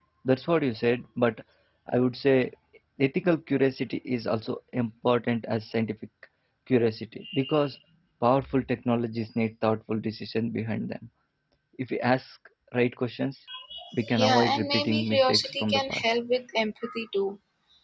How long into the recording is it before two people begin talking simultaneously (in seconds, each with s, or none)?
14.2 s